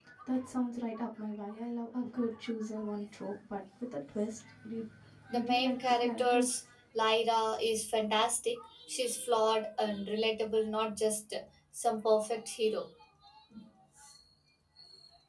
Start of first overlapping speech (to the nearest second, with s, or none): 5 s